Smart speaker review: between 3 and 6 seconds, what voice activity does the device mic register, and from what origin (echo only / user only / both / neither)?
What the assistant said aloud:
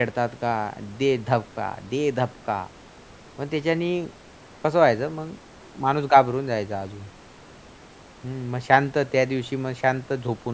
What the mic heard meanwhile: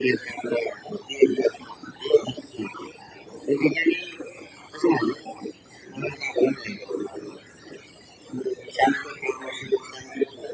echo only